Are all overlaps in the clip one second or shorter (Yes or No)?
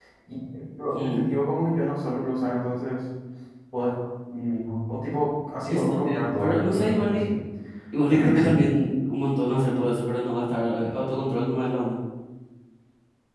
No